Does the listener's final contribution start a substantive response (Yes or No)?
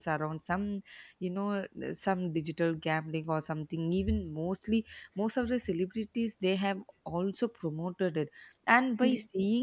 No